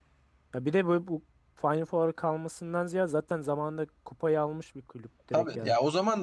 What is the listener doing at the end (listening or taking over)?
taking over